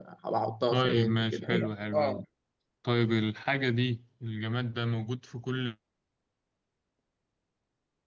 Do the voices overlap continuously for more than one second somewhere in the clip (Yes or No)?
Yes